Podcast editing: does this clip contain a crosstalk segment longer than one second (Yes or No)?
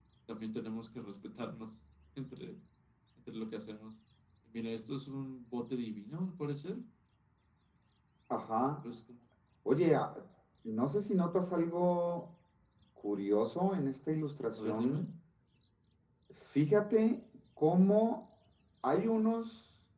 No